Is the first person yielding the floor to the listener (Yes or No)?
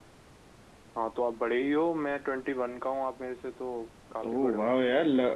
Yes